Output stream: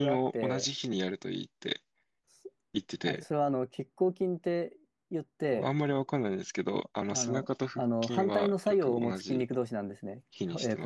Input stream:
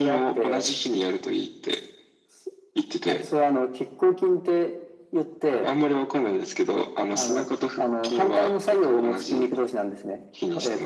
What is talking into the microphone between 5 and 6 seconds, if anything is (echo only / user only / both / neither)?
echo only